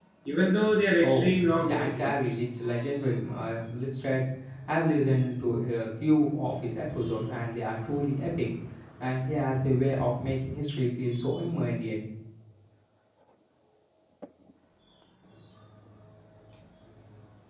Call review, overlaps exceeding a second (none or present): present